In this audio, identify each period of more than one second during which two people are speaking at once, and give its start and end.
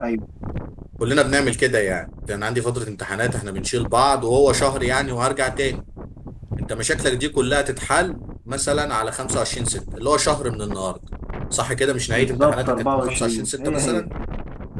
12.2-14.0

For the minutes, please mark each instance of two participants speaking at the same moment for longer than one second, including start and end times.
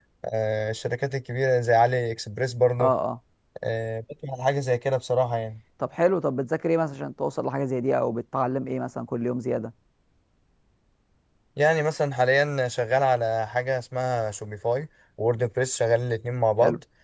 none

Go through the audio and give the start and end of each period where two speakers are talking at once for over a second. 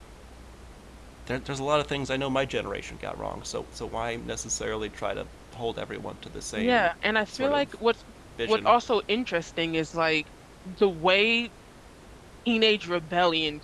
6.6-7.8

